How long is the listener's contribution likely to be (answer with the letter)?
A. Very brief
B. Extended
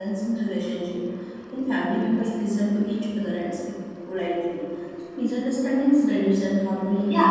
B